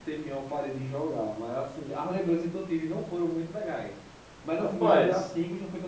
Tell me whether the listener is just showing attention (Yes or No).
Yes